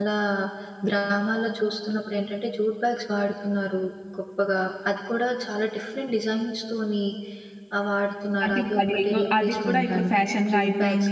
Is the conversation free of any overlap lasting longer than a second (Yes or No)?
No